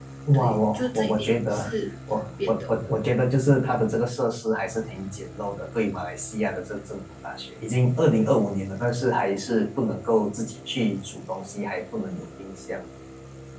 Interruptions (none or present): present